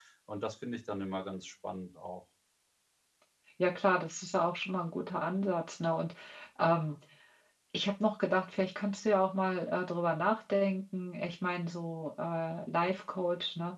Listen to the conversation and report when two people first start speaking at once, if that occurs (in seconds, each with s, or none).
none